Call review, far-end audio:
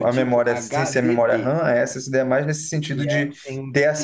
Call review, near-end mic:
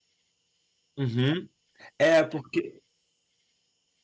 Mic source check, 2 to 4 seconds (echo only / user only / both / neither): user only